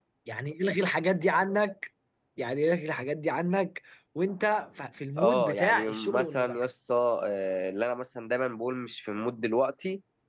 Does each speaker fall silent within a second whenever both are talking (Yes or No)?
No